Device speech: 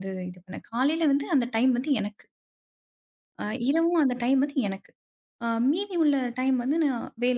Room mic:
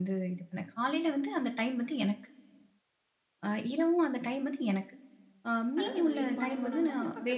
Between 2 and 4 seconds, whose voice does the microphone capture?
echo only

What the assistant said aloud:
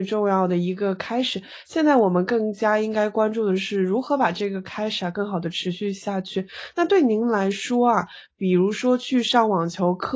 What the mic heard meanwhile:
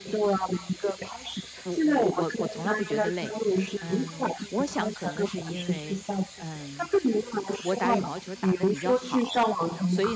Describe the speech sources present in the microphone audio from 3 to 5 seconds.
both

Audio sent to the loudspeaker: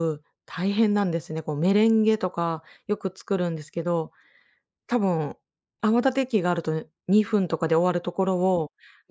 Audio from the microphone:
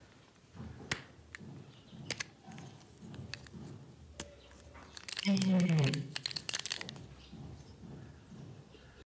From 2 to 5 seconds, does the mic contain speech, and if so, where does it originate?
neither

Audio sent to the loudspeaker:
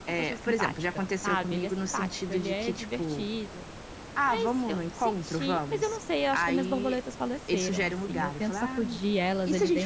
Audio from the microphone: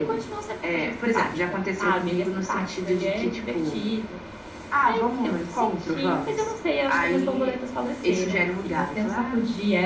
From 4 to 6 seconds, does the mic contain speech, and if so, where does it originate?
echo only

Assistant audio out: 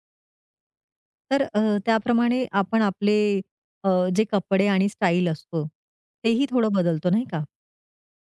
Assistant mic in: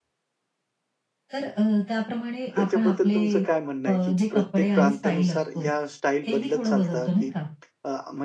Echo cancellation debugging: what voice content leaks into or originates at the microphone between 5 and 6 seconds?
both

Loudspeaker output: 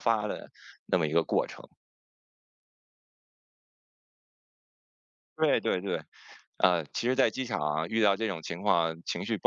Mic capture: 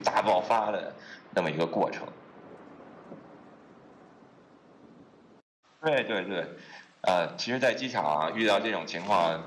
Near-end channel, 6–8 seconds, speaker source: echo only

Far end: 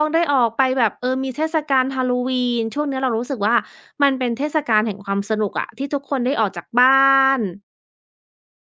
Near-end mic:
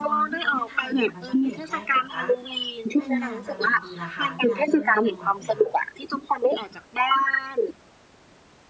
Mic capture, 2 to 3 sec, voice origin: both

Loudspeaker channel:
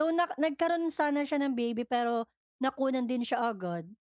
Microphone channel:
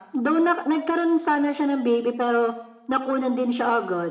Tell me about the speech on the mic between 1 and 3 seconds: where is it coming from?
echo only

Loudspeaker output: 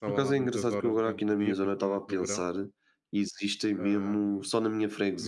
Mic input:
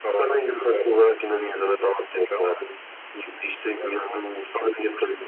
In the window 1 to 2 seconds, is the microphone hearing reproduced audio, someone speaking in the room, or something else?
echo only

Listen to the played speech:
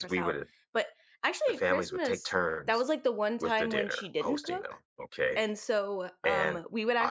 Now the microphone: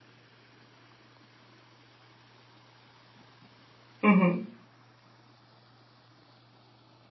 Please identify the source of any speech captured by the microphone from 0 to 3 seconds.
neither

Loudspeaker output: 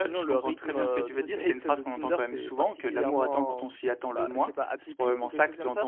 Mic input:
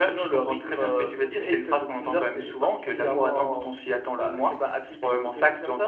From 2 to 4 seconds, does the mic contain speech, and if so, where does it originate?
echo only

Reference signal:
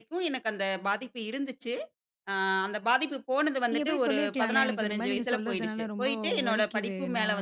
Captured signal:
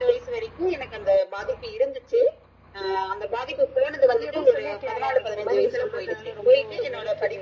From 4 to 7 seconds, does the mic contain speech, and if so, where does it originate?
echo only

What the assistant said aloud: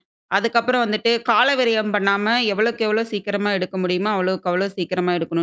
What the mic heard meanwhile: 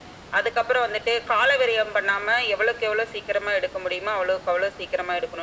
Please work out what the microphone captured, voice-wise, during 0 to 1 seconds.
echo only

